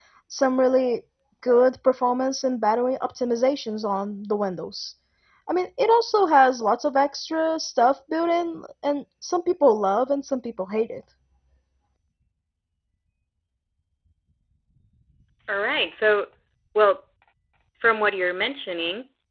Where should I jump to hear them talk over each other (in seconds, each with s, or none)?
none